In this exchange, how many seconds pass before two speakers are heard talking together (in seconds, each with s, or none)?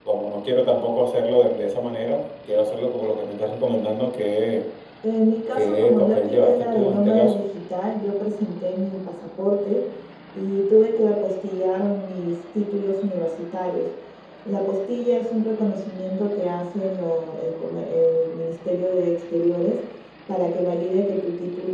5.6 s